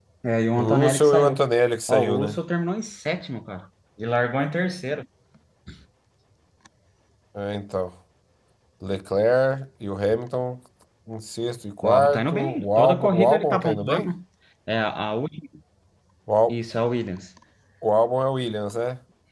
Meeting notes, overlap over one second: present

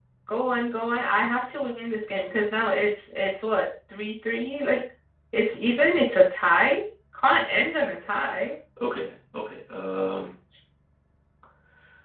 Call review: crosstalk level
none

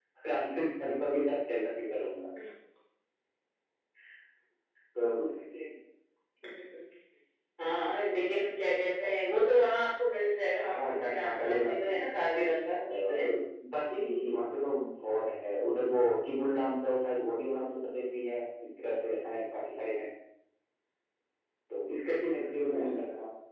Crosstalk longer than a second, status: present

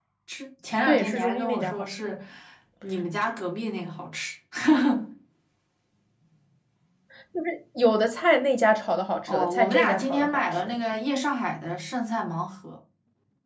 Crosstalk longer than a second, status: present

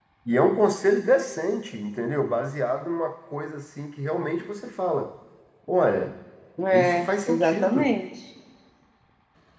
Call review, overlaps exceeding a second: present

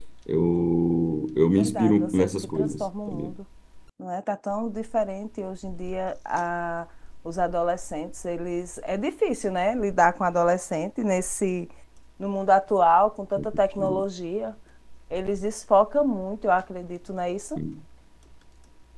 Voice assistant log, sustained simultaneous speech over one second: present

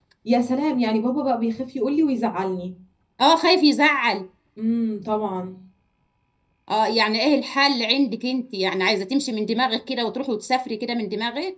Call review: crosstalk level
none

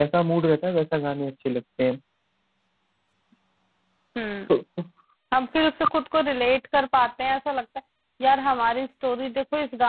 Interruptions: none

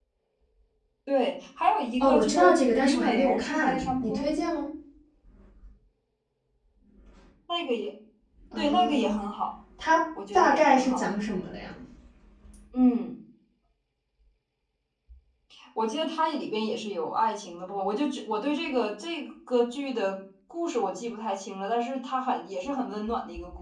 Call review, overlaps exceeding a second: present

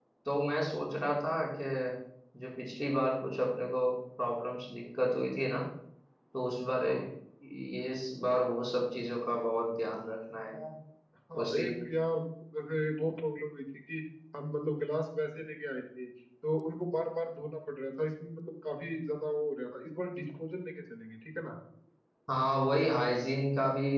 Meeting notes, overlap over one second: none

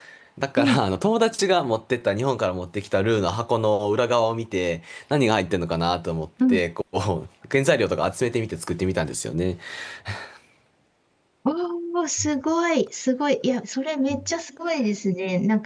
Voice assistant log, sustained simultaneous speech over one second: none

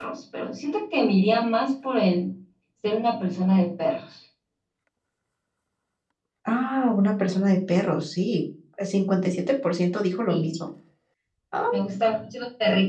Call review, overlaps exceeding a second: none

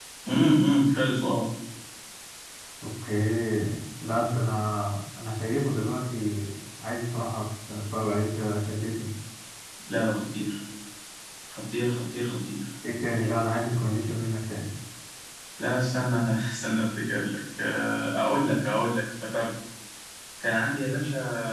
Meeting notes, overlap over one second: none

